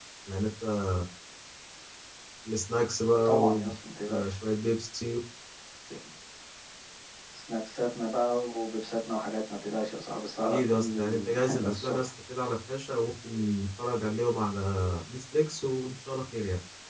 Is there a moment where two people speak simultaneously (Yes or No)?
Yes